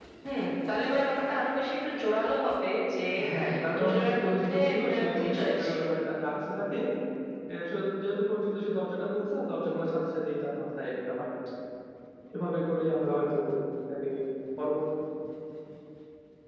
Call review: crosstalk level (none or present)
present